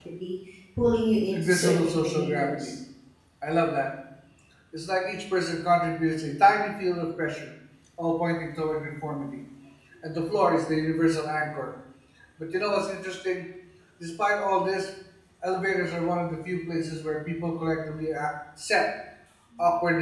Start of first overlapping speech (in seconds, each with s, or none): 1.3 s